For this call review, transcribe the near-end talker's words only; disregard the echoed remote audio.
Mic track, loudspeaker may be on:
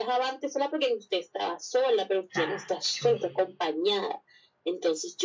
O sea, yo dije,

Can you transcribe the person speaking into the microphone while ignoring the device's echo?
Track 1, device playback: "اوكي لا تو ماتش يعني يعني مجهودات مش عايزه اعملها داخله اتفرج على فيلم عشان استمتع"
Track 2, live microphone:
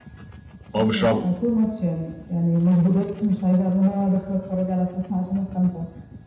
هو مش رعب

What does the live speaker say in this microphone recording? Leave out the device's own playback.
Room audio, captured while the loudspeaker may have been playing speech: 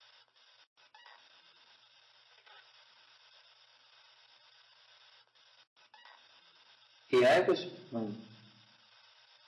किया है कुछ हम्म

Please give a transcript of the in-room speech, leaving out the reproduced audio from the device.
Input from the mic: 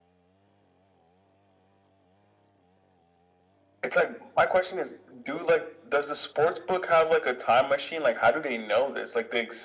none

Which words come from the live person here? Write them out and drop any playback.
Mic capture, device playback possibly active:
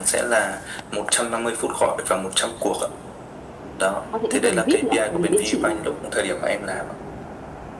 quan hệ khách hàng VIP nữa bởi vì bên chị là

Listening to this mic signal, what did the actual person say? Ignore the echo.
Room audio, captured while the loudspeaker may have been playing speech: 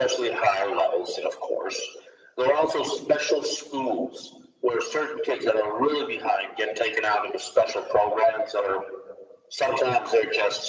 none

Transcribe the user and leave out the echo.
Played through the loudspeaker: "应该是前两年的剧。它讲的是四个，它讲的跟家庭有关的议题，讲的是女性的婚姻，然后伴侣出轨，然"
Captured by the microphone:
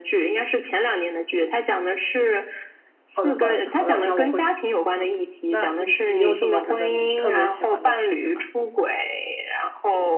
好的，好的，好的，那我会去。嗯，那你你有什么觉得你特别喜欢的剧吗？

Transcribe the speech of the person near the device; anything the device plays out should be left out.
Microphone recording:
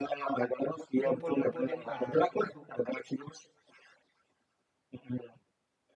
ngumpul-ngumpulin kartu.

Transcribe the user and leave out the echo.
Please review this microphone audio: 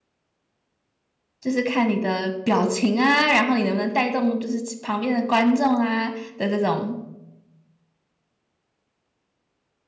就是看你的表情啊，然后你能不能带动就是旁边的观众啊的这种。

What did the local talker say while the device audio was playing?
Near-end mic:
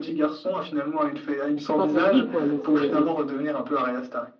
elle s'est pas perdue quoi. Elle s'est, elle s-

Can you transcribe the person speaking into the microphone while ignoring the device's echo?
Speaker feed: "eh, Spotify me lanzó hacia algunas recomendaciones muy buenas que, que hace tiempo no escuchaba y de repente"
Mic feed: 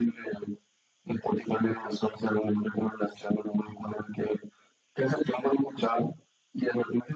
none

